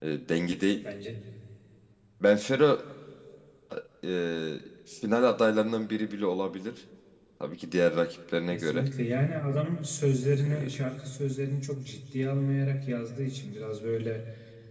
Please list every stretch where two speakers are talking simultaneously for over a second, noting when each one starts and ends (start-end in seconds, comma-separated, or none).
none